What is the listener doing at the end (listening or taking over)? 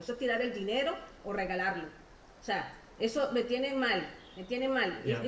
taking over